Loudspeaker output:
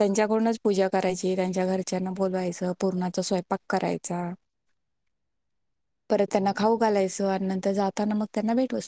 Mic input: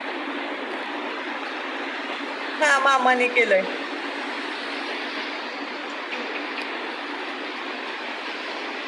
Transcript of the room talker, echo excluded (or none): हा मामाने केलंय